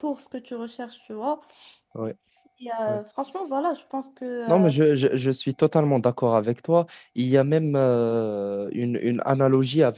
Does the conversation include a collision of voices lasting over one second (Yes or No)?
No